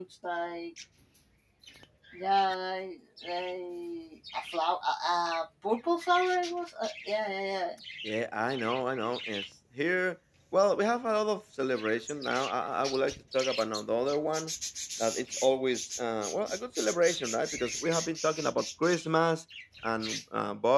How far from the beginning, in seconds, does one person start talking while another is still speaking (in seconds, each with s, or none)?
none